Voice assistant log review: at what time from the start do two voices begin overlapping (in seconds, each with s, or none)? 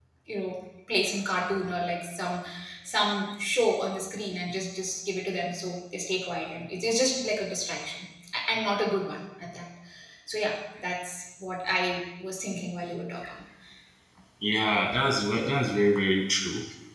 none